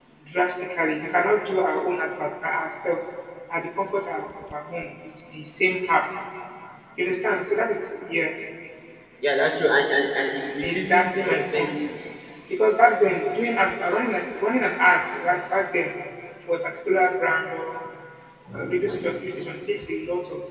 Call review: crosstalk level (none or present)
present